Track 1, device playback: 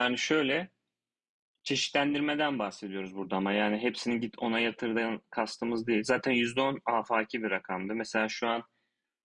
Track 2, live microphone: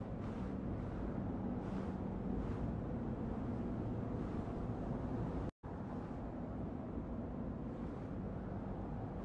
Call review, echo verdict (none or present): none